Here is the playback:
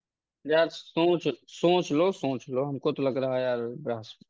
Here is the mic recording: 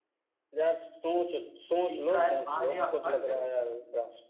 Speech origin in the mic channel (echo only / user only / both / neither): both